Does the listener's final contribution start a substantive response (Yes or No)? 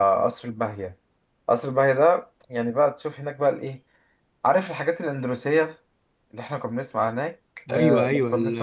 Yes